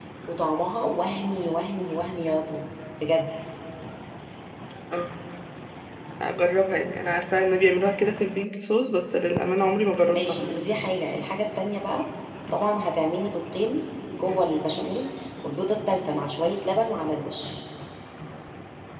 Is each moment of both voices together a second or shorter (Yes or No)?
Yes